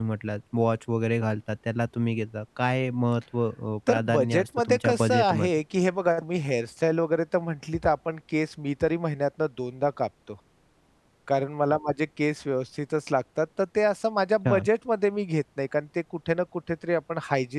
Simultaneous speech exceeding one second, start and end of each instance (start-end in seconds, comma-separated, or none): 3.9-5.5